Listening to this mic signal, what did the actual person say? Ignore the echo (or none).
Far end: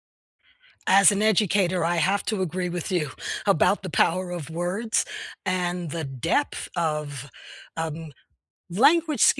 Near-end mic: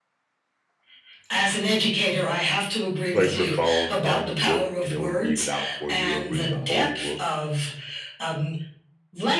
place your phone on the book and it will read it out for you. It'll read the whole book